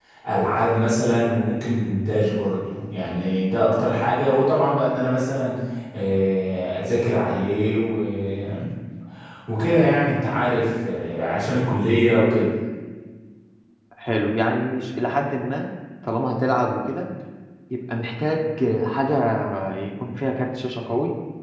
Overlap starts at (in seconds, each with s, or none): none